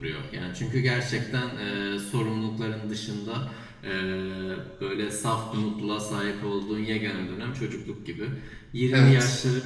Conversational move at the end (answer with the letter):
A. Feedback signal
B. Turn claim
A